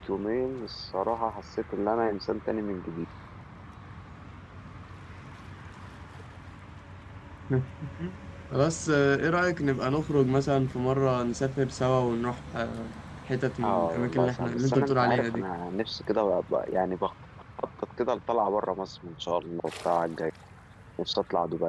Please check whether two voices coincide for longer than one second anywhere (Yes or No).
Yes